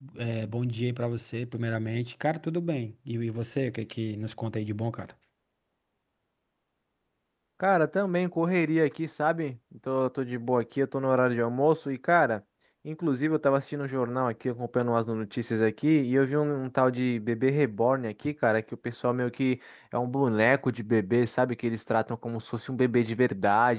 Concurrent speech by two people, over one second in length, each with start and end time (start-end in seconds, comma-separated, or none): none